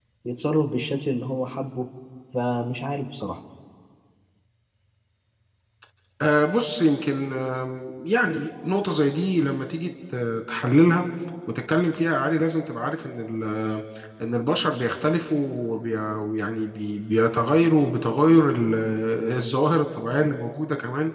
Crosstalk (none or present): none